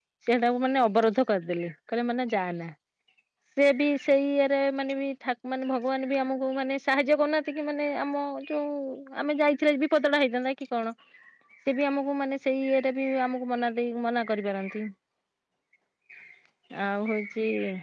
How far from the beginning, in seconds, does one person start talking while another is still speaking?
none

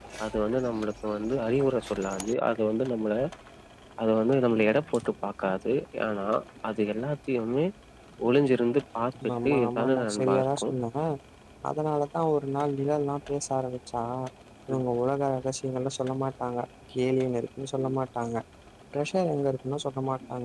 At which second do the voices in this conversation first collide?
9.4 s

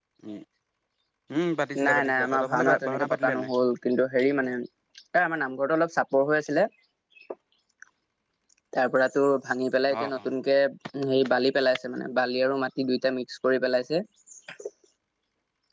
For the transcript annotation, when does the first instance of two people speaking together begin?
1.8 s

